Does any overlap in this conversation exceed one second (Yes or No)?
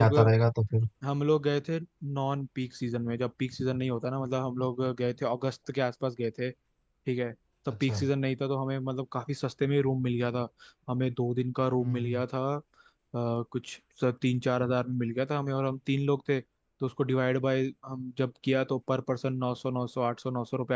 No